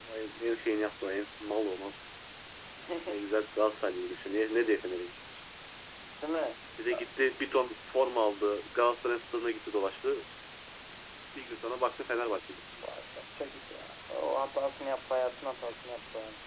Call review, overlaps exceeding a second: none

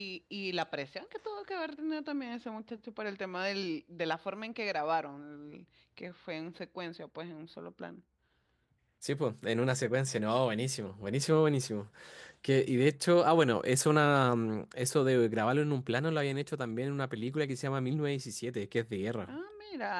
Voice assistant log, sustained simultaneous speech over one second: none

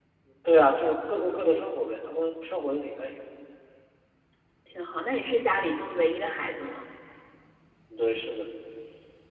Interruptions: none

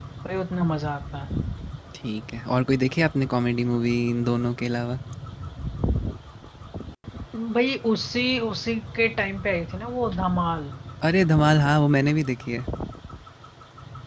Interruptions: none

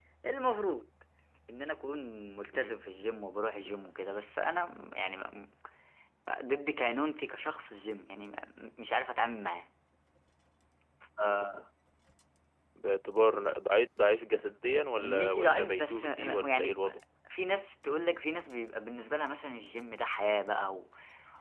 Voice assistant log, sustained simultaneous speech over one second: present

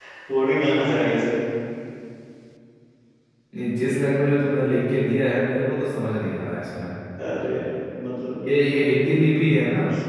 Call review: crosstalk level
none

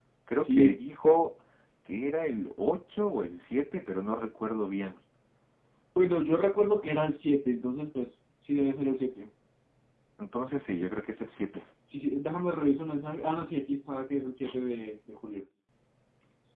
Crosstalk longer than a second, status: none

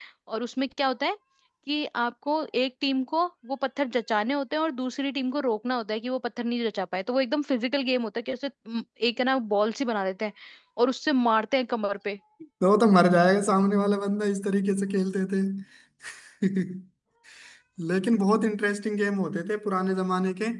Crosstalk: none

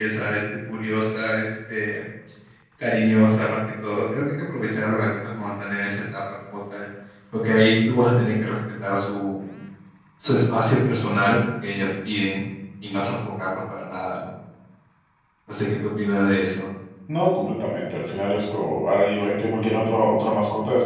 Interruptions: none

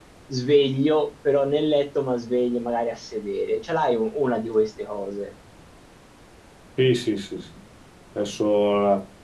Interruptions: none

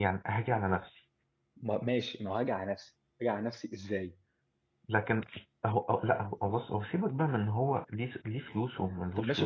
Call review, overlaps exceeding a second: none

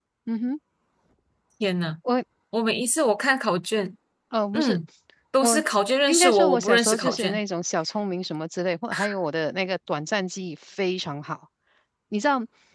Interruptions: present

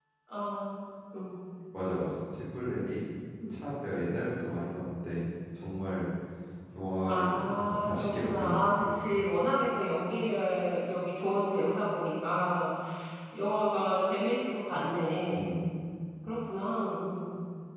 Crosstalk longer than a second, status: present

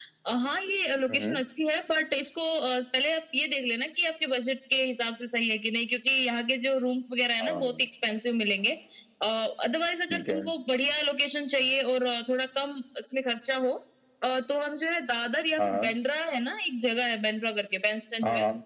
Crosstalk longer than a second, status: none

